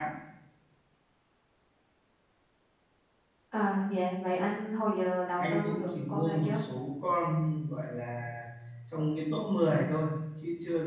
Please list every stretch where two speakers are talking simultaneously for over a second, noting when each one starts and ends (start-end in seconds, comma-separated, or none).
5.4-6.6